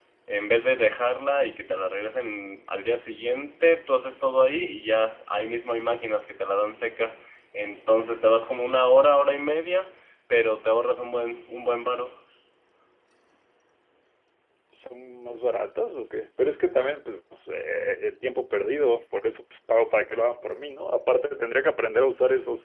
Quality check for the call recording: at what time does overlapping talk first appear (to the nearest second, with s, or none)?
none